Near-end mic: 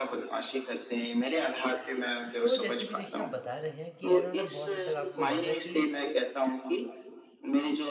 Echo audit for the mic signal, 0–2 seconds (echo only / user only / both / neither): echo only